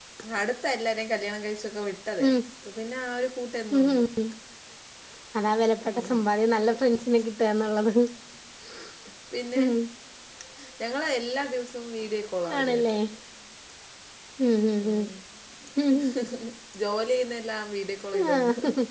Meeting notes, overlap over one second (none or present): none